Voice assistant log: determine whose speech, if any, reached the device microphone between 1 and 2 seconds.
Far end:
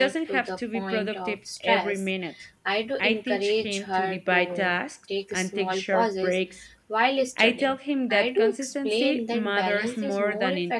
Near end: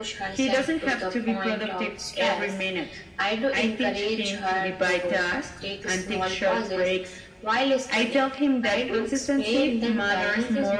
echo only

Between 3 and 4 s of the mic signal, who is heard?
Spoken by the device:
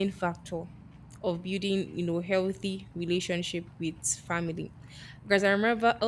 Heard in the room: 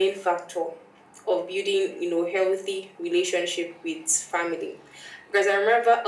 echo only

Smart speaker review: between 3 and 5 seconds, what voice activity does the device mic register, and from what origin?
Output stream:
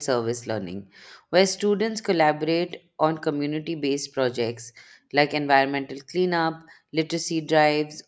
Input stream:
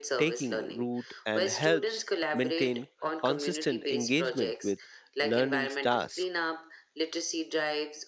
both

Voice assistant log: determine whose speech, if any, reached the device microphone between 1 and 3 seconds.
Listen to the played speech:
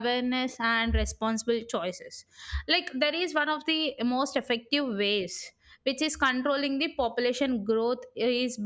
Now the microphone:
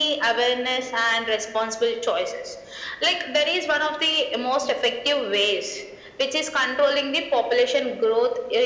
echo only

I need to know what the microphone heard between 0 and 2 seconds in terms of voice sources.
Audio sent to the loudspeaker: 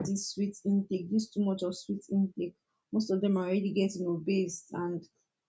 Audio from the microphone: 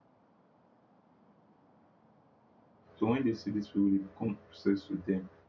neither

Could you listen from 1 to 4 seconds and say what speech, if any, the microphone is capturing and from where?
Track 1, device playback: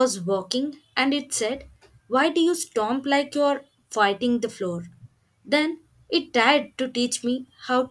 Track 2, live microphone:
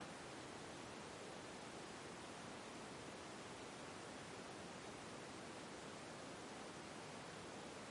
neither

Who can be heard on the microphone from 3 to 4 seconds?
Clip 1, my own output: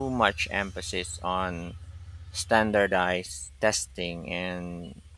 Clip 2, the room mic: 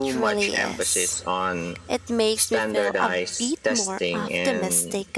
both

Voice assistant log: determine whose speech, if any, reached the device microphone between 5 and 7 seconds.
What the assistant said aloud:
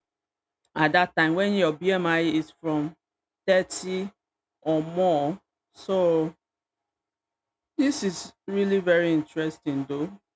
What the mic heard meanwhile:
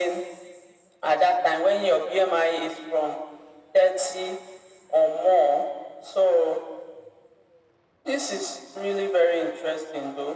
echo only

